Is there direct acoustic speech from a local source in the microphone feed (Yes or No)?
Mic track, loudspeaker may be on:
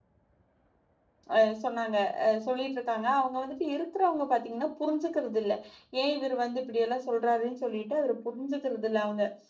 Yes